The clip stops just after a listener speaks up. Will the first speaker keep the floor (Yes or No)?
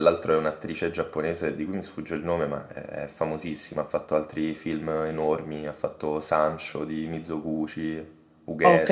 No